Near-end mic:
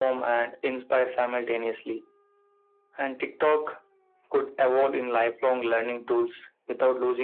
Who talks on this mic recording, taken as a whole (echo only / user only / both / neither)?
echo only